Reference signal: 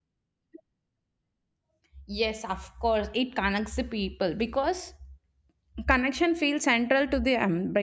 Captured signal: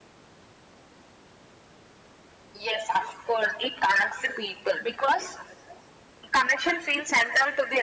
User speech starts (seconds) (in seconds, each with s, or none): none